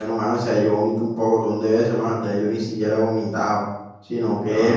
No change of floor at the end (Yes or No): Yes